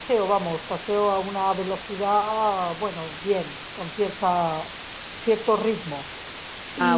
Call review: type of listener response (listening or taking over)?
taking over